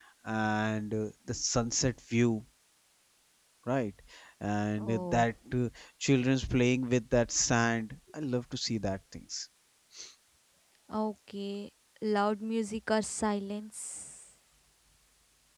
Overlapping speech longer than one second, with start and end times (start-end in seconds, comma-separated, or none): none